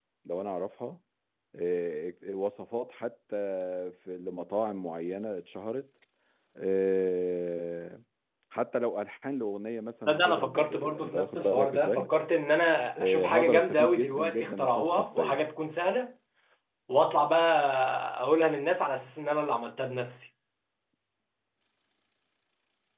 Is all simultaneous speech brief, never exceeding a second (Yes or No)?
No